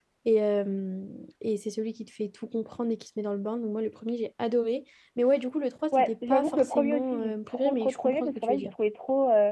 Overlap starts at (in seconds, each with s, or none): 5.9 s